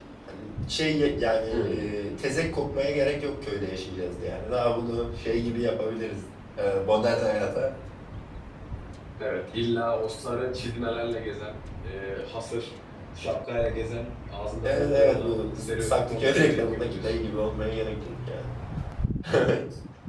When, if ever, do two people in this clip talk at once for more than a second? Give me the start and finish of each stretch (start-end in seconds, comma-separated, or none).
14.6-17.1